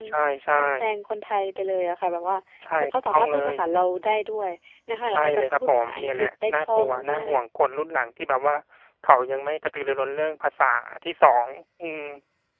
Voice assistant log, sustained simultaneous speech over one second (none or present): present